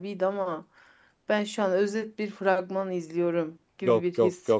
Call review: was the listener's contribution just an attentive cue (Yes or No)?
No